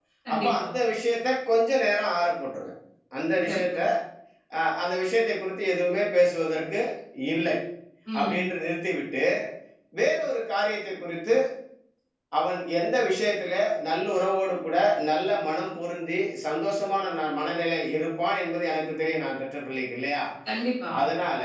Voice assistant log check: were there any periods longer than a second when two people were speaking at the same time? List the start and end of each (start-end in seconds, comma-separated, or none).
none